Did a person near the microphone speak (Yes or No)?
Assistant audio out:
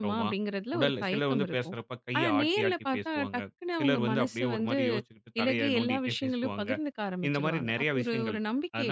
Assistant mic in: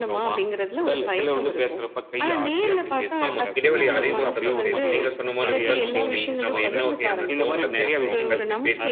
Yes